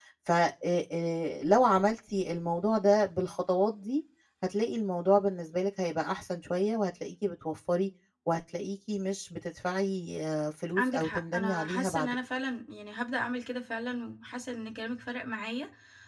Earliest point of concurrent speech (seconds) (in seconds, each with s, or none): 10.8 s